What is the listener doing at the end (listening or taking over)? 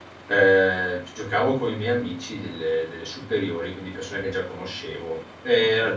listening